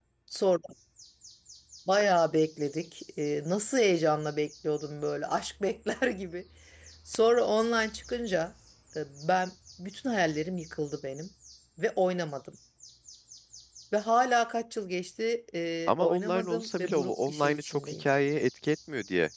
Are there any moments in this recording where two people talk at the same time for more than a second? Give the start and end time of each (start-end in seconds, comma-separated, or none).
15.9-18.0